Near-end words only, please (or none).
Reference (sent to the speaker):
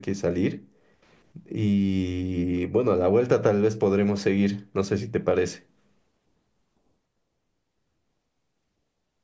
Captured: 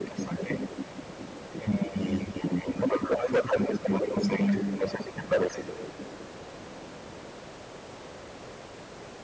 none